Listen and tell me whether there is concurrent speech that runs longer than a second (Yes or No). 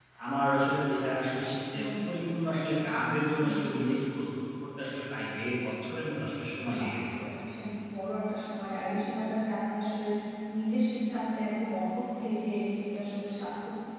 No